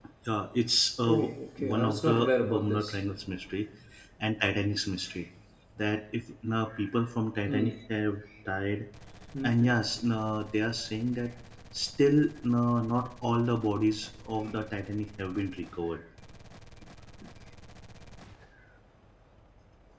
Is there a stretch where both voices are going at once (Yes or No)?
Yes